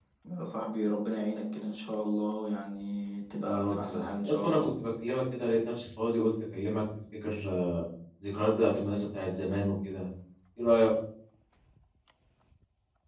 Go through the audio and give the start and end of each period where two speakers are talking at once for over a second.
3.4-4.7

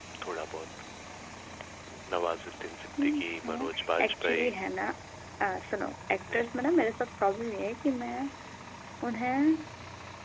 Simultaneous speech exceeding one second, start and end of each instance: 3.0-4.5

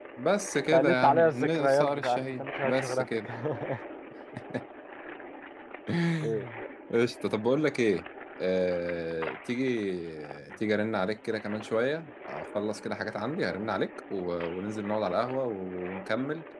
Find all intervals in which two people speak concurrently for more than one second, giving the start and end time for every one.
0.7-3.3

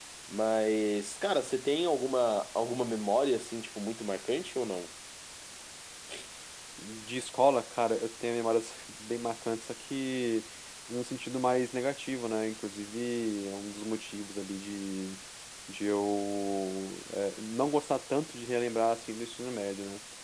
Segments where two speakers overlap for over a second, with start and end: none

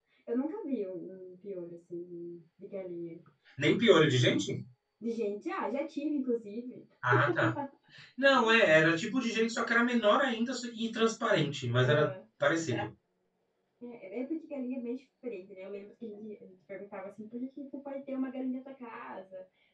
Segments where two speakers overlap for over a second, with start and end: none

